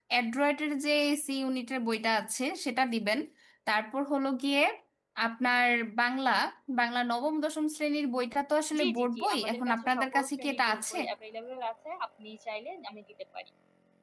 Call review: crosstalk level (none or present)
present